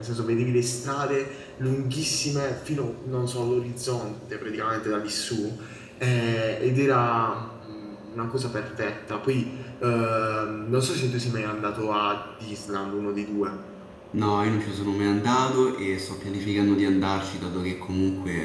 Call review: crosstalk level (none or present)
none